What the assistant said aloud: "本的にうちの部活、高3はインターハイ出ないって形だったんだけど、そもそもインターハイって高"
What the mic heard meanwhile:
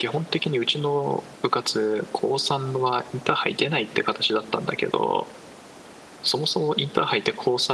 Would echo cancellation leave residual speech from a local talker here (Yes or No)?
No